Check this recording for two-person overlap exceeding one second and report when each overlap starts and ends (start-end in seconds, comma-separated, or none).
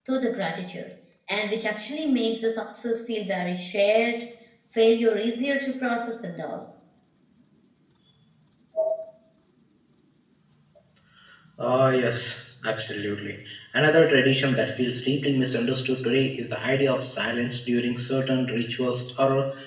none